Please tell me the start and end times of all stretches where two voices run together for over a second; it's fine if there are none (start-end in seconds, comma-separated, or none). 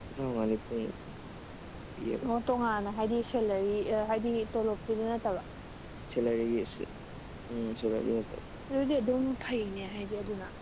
none